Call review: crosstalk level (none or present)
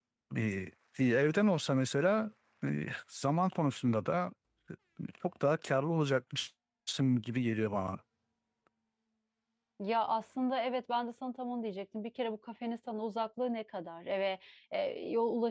none